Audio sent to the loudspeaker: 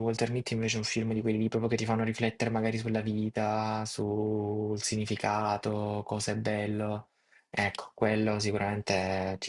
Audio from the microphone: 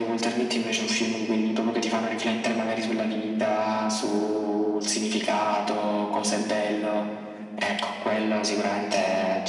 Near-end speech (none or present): none